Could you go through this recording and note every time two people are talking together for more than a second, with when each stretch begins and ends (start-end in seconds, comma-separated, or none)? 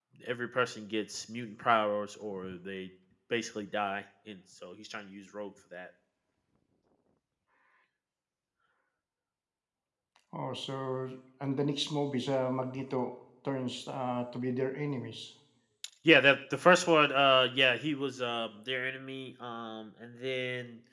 none